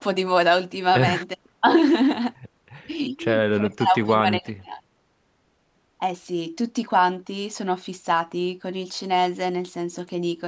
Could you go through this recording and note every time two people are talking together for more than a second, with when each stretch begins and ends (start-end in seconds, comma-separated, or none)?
3.2-4.4